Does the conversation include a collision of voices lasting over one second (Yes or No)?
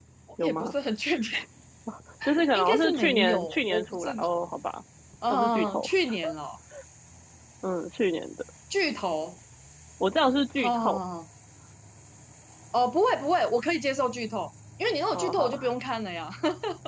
Yes